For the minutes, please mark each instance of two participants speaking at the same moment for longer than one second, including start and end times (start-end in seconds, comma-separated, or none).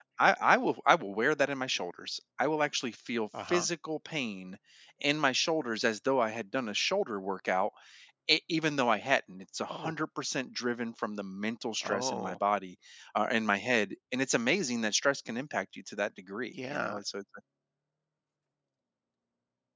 none